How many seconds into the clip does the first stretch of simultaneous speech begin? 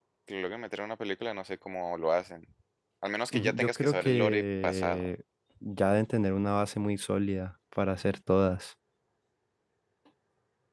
3.3 s

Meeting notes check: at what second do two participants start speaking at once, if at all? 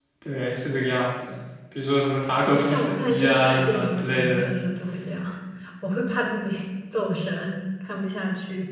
2.6 s

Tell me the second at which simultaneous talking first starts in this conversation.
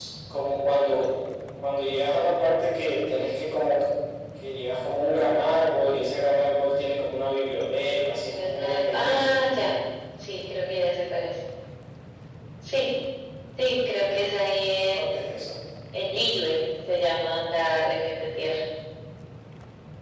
8.1 s

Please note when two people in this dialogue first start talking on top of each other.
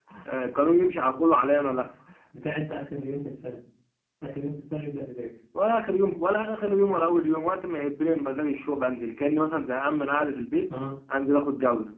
none

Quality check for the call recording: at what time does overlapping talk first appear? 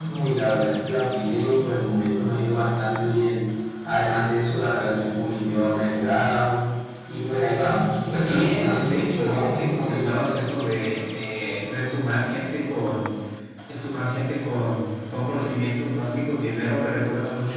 8.2 s

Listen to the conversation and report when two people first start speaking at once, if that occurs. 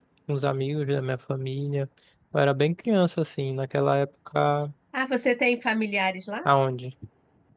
none

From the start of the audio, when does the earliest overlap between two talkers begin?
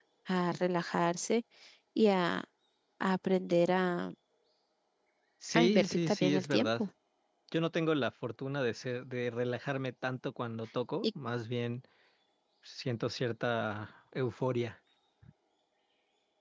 5.5 s

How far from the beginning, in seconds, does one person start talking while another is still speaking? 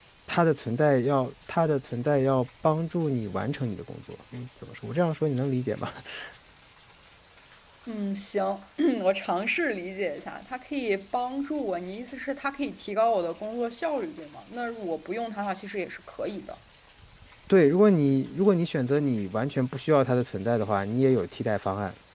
none

